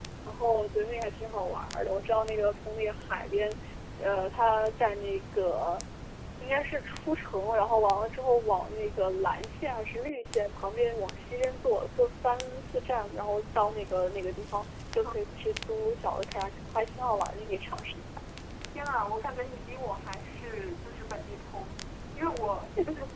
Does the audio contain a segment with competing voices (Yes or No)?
No